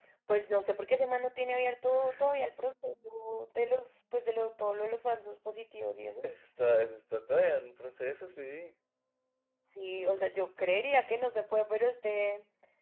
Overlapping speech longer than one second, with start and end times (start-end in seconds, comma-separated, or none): none